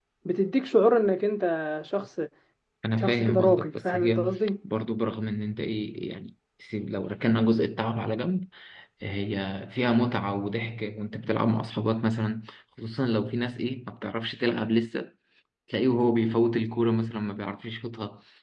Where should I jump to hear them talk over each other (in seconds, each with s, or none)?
3.0 s